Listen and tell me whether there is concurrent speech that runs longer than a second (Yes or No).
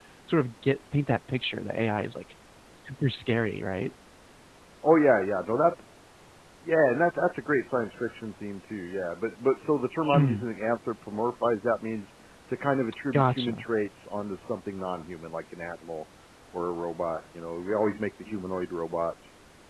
No